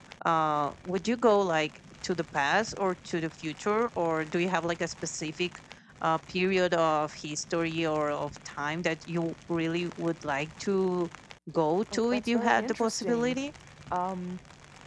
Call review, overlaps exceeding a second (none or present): present